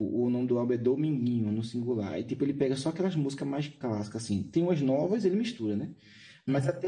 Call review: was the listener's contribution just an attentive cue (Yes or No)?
Yes